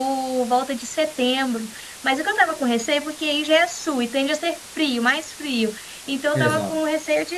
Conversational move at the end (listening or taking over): listening